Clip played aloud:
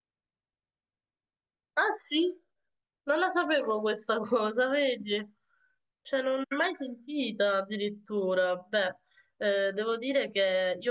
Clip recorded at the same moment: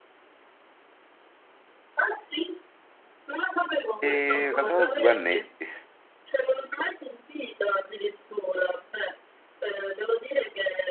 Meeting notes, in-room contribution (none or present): present